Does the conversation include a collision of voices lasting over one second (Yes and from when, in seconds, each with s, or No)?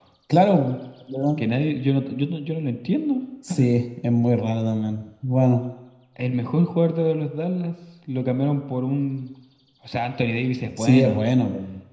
No